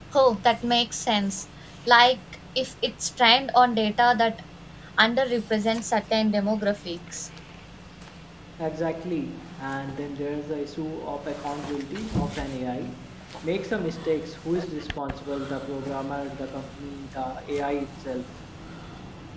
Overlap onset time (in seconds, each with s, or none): none